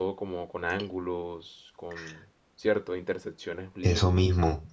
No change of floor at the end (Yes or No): No